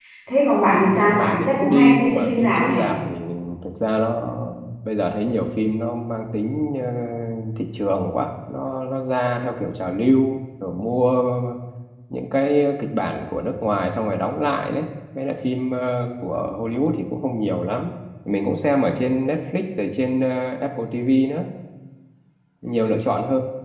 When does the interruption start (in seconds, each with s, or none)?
0.7 s